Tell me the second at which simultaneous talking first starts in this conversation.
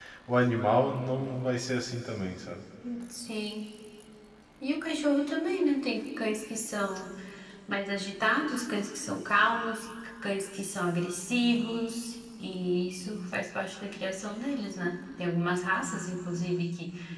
none

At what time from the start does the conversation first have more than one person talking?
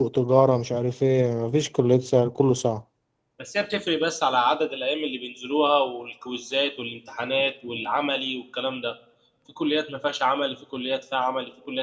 none

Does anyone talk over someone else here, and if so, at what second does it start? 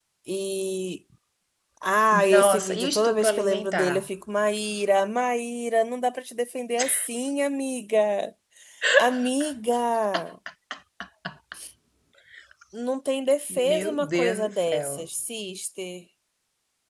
2.3 s

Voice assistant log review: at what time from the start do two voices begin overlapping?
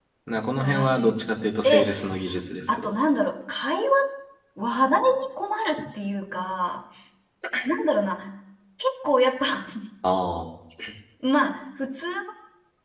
0.6 s

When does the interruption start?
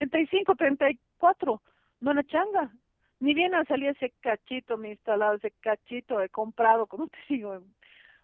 none

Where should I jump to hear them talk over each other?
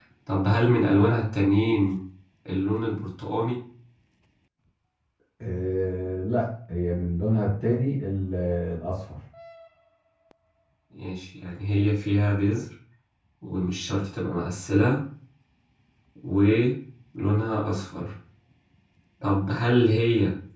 none

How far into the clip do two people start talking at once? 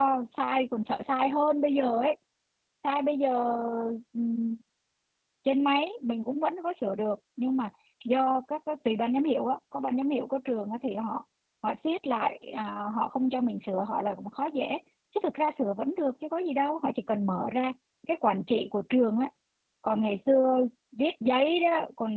none

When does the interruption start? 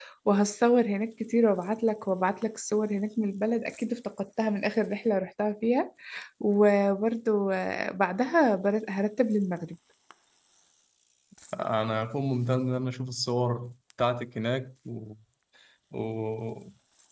none

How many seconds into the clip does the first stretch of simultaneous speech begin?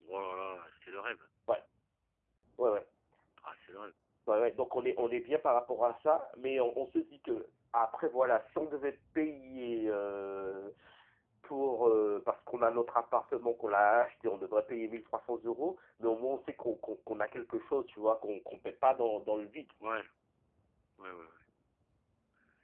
none

